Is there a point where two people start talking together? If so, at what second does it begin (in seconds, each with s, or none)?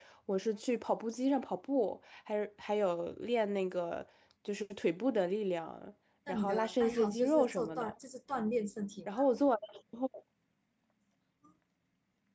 6.3 s